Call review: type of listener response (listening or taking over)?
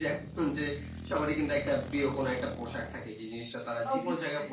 listening